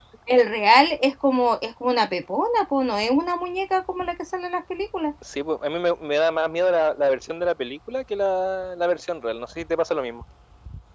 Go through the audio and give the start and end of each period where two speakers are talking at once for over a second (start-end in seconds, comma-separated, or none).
none